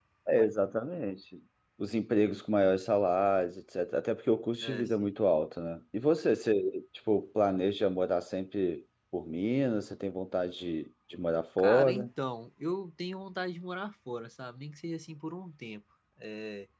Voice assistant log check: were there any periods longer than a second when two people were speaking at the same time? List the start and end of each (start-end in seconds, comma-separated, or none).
none